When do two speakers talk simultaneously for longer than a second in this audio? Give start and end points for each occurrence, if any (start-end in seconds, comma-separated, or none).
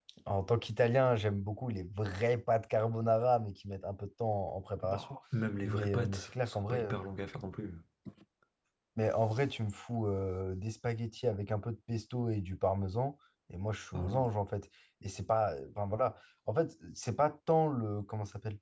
5.6-7.0